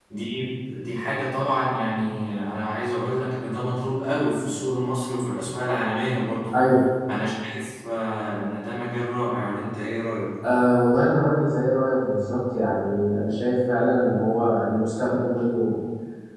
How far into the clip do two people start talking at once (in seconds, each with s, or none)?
none